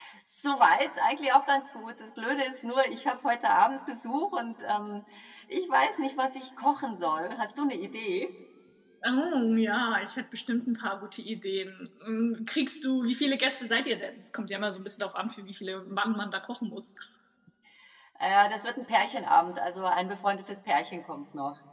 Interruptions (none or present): none